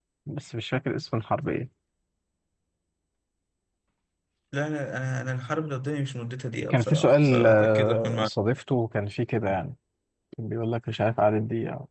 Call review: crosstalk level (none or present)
present